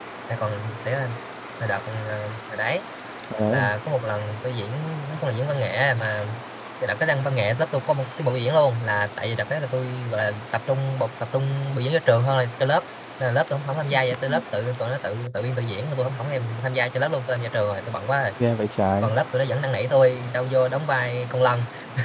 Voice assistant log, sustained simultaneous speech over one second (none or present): none